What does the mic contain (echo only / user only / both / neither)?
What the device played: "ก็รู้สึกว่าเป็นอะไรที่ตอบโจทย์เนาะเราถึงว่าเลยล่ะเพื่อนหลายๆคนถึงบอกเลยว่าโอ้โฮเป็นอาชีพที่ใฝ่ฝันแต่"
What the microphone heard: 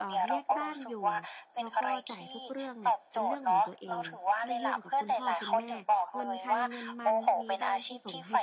both